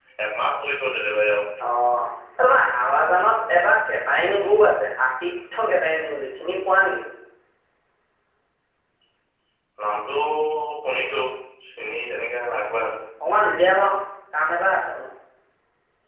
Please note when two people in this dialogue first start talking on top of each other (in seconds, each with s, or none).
none